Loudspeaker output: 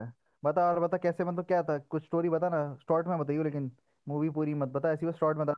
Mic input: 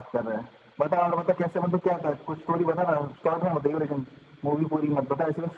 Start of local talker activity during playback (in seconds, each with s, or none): none